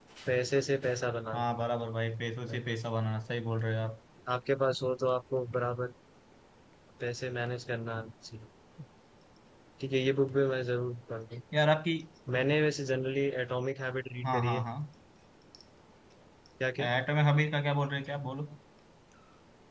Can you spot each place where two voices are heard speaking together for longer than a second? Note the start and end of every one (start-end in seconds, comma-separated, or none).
none